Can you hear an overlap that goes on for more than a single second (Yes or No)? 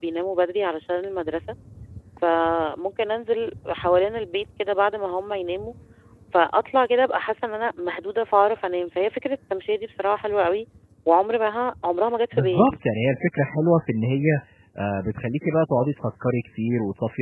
No